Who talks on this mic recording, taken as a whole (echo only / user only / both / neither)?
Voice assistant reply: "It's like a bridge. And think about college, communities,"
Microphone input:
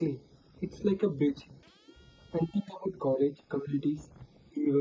echo only